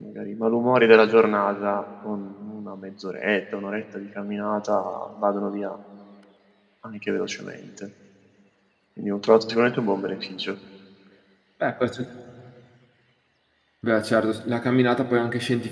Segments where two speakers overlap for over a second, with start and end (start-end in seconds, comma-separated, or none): none